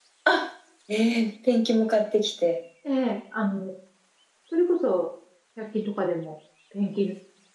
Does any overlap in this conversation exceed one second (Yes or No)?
No